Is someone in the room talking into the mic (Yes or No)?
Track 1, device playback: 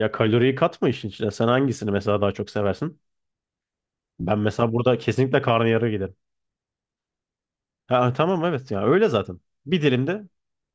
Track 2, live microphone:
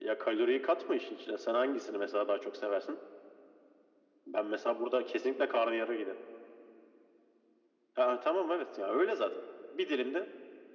No